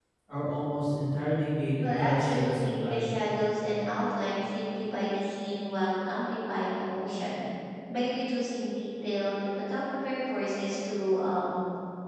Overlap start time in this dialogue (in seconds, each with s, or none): 1.8 s